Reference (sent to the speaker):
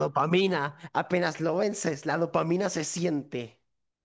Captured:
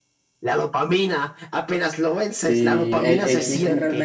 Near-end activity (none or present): present